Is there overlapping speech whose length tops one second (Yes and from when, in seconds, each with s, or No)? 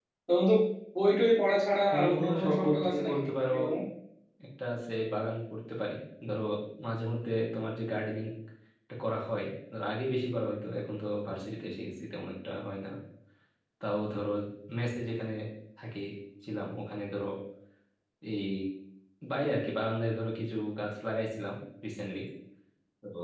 Yes, from 1.9 s